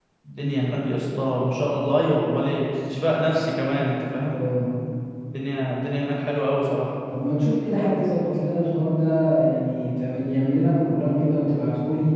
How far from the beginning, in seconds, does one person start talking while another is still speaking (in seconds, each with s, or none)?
none